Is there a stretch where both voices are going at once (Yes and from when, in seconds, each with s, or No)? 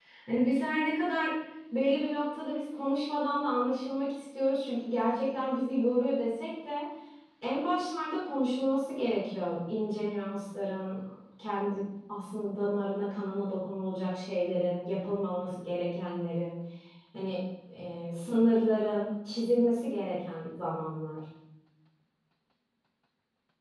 No